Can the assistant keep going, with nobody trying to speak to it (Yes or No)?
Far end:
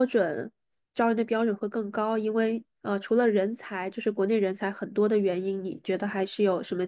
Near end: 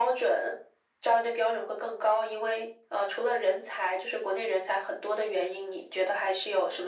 Yes